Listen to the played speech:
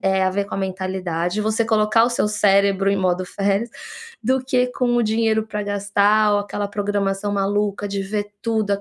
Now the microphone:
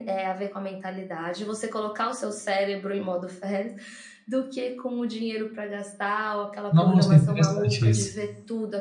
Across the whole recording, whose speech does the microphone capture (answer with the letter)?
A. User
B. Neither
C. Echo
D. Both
D